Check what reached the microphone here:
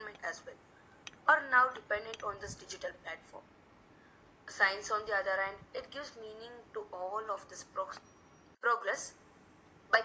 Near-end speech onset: none

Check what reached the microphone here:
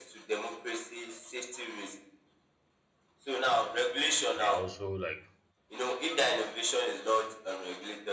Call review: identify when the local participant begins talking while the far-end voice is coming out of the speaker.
4.3 s

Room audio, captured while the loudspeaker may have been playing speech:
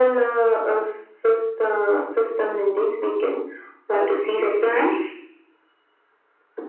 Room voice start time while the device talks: 3.9 s

